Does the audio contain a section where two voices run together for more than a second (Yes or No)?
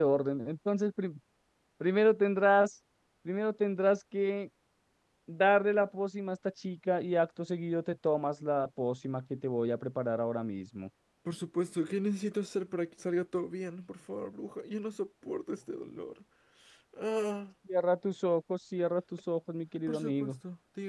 No